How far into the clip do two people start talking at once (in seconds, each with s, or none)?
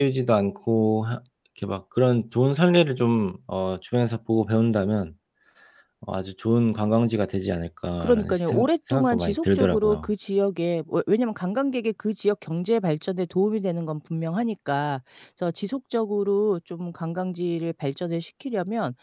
8.0 s